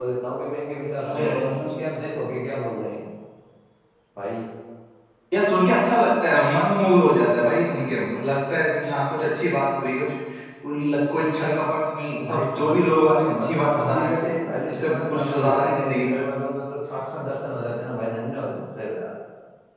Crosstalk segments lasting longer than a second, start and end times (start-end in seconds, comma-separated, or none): 12.3-14.2, 14.7-16.2